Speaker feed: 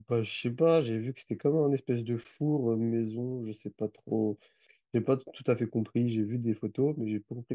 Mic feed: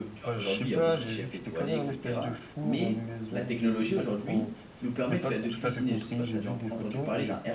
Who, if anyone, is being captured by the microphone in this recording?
both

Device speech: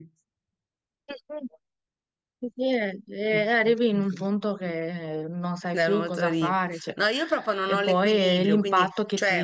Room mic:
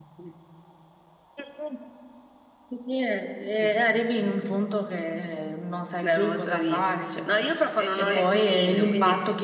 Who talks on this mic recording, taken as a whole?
both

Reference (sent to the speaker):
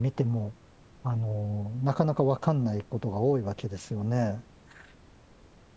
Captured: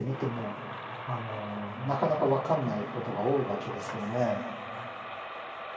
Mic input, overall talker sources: echo only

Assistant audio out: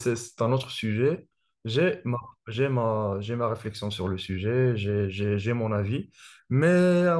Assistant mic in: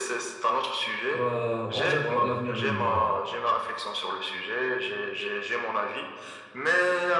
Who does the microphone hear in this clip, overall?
both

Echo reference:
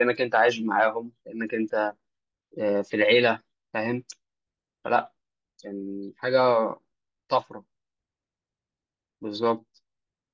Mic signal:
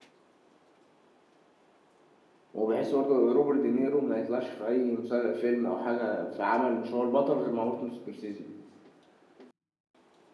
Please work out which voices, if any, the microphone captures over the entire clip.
user only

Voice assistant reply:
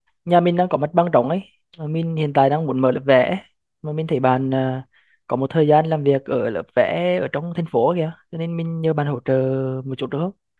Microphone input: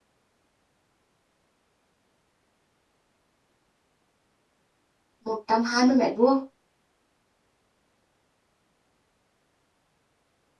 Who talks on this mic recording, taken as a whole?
user only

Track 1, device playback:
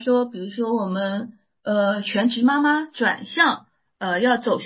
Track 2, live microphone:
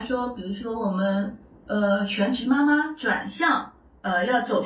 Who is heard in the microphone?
echo only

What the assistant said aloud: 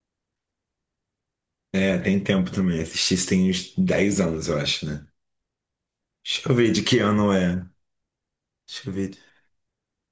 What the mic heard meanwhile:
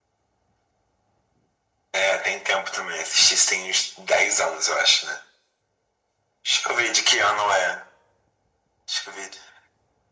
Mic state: echo only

